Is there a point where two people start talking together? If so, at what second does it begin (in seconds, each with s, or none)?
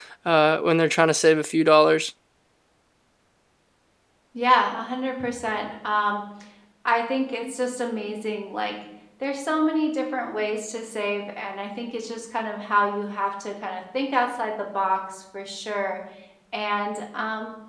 none